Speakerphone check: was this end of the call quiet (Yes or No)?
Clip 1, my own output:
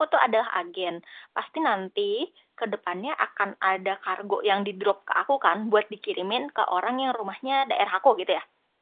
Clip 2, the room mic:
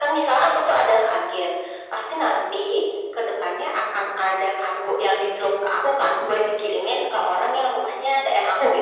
Yes